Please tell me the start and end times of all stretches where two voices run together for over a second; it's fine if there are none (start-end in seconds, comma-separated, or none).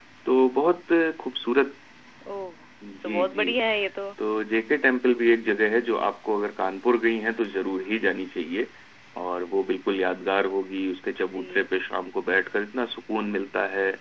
none